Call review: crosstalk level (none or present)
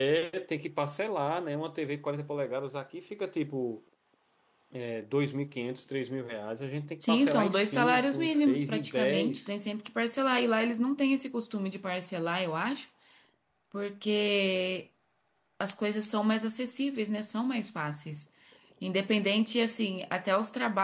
present